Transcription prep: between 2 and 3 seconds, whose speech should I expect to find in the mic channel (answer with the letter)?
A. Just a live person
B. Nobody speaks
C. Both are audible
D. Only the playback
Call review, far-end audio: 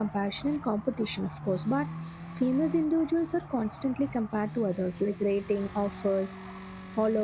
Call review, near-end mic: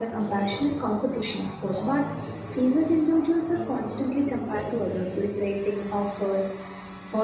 C